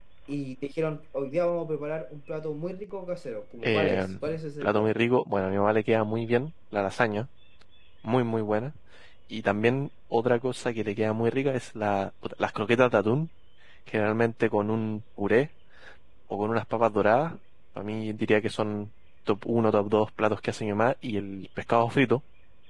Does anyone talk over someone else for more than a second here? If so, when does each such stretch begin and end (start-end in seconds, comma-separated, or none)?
3.6-4.9